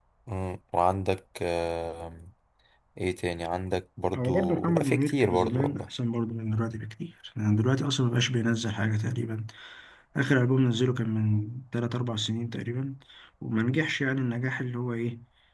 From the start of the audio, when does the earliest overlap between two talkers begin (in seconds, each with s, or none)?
4.1 s